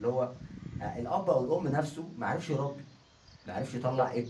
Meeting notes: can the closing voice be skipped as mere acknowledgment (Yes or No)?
Yes